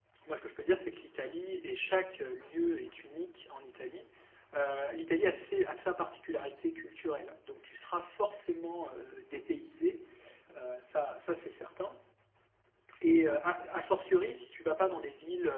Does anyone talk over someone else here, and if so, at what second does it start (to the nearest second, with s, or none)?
none